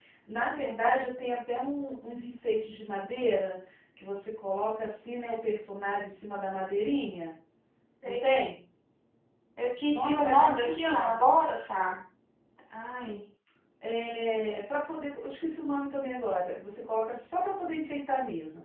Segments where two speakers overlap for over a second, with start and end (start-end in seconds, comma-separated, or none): 9.9-11.3